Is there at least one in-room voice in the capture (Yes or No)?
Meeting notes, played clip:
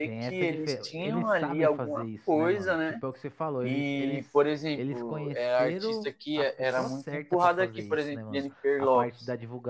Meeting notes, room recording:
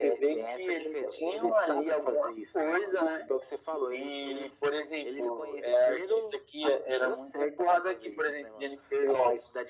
No